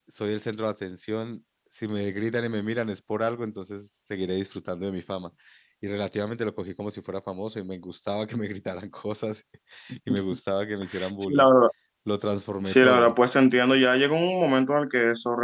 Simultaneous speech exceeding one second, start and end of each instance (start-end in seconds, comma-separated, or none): none